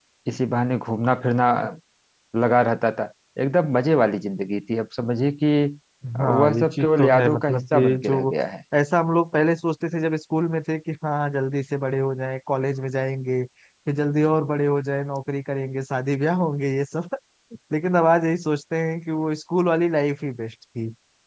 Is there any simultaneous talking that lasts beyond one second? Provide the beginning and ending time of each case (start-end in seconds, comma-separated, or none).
6.2-8.3